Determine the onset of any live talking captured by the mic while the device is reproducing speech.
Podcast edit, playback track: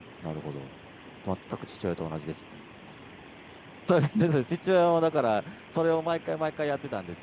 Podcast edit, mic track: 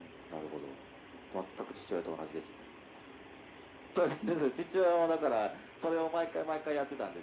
none

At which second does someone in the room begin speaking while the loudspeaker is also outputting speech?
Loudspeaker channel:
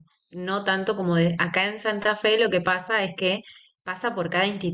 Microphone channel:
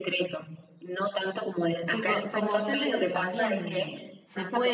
1.8 s

